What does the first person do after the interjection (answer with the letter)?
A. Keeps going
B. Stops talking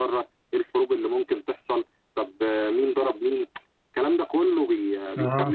B